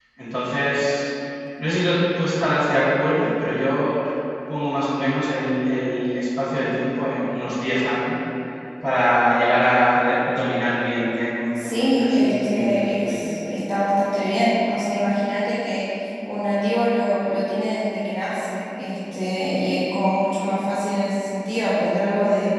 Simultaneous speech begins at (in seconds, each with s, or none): 11.6 s